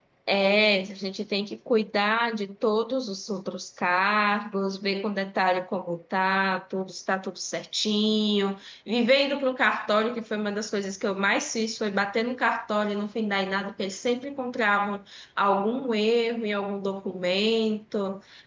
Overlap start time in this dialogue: none

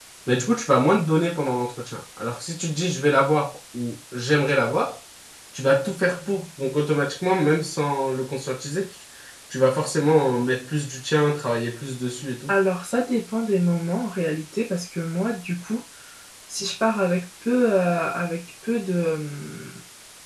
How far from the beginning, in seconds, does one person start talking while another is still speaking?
none

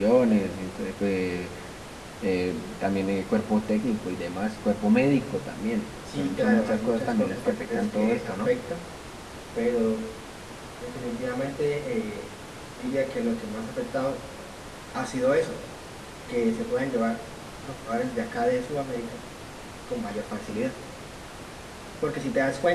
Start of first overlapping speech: 6.1 s

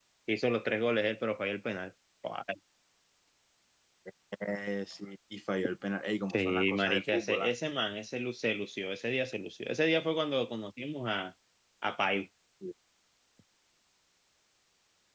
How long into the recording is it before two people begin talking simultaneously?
6.3 s

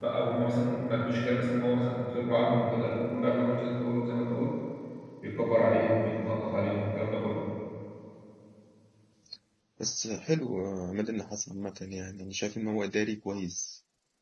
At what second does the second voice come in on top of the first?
none

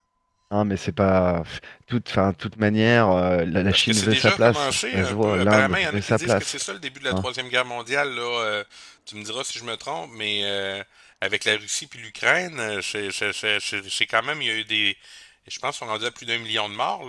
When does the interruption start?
3.7 s

